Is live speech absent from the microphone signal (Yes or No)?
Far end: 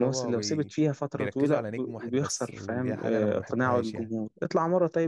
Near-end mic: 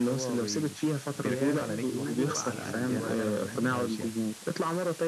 No